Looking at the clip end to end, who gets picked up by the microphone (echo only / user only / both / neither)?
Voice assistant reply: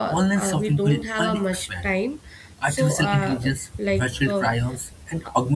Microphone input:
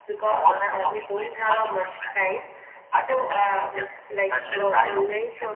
both